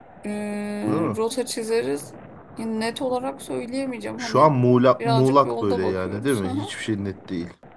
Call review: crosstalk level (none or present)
present